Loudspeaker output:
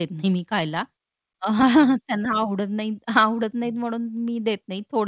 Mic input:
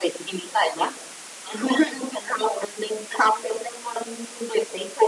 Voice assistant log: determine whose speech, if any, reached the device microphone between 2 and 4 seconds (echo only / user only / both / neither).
echo only